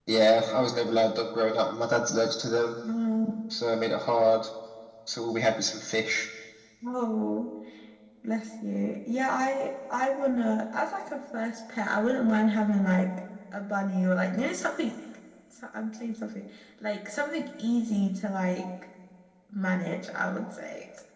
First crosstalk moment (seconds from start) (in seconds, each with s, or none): none